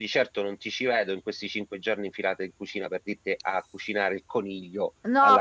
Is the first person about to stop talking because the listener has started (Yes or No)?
Yes